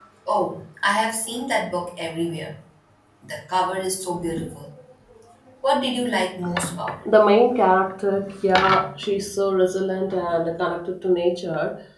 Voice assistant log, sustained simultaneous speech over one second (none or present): none